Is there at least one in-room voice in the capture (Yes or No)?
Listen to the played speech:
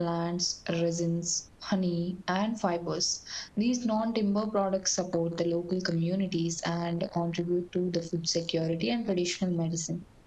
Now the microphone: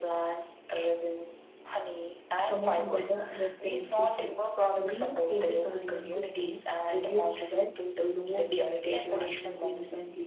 Yes